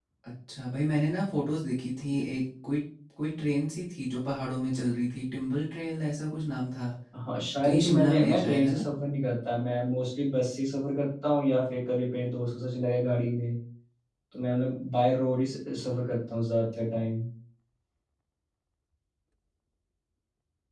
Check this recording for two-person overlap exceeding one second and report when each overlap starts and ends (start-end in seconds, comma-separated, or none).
7.6-8.8